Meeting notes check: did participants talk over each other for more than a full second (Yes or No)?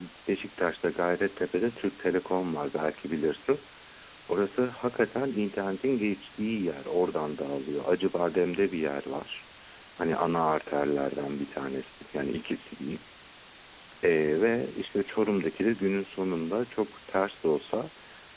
No